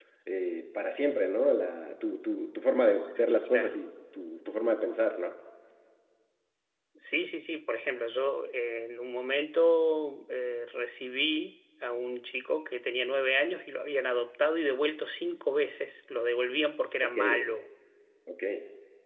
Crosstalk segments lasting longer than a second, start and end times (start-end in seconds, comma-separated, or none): none